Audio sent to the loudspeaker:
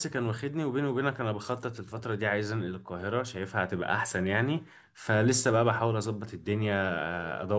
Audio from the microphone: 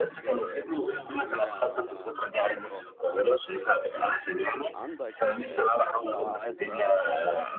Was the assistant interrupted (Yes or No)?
Yes